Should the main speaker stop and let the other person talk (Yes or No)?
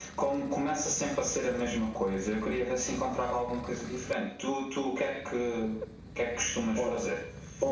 Yes